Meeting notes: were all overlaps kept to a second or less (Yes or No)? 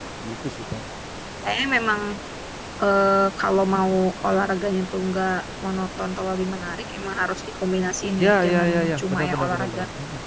No